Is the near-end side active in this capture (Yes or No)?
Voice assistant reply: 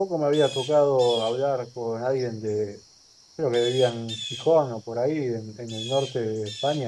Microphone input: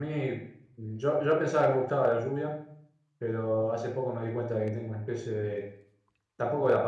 Yes